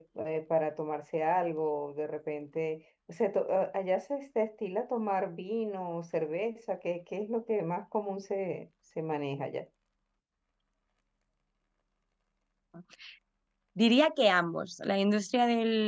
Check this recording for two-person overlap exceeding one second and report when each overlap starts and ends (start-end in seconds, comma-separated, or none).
none